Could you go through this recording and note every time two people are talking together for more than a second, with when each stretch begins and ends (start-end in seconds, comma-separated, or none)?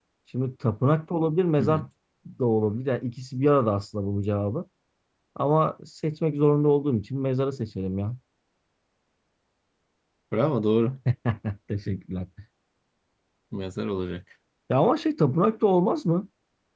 none